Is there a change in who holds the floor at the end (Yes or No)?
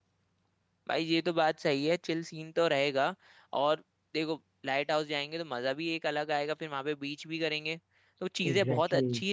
No